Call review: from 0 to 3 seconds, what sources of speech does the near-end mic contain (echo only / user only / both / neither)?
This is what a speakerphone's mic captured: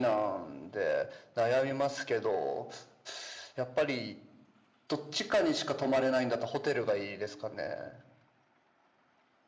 echo only